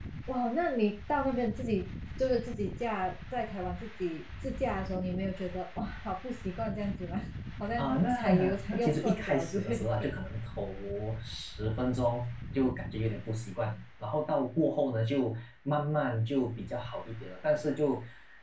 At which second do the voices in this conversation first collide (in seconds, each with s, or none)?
7.8 s